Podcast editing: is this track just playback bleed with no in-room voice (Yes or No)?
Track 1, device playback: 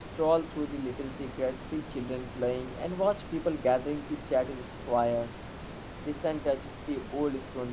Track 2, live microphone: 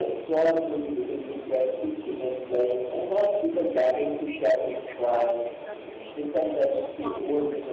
No